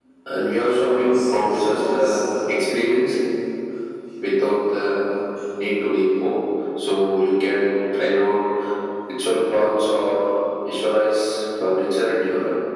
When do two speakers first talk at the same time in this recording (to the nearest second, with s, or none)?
1 s